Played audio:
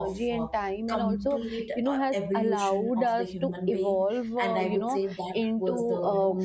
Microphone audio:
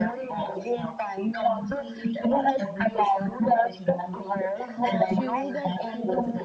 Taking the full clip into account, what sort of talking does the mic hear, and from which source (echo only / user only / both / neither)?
both